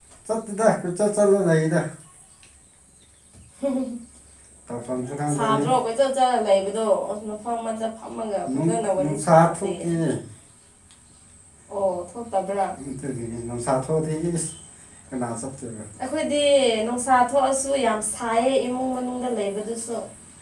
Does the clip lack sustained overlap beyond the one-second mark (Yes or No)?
No